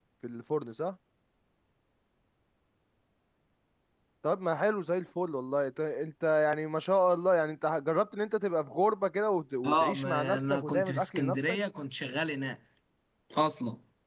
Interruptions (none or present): present